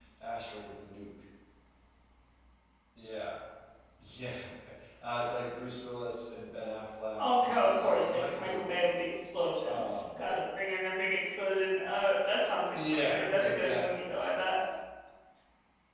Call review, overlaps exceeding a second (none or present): present